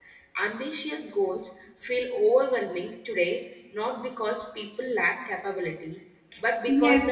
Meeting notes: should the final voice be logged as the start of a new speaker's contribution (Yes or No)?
Yes